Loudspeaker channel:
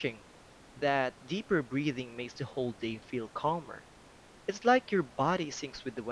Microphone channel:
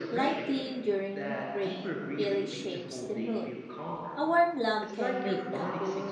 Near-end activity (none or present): present